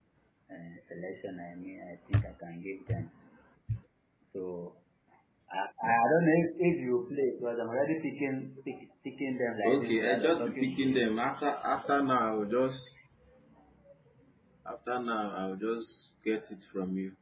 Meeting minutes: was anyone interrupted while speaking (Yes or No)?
Yes